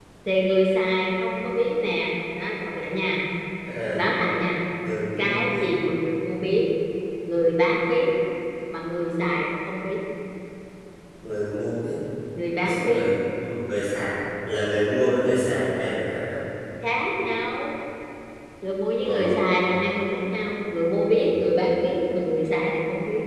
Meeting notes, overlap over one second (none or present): none